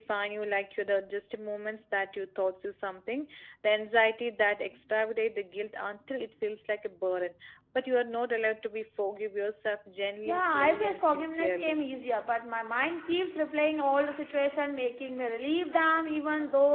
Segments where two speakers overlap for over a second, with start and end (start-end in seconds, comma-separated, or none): 10.2-11.8